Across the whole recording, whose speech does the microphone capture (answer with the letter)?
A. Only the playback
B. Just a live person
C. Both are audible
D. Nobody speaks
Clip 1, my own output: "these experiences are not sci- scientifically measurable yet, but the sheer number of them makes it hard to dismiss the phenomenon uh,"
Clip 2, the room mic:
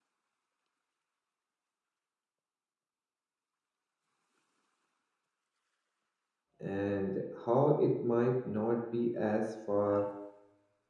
B